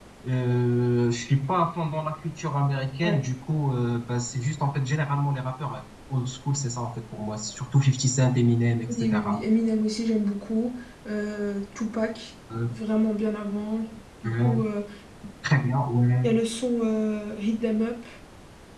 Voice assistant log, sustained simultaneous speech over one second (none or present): none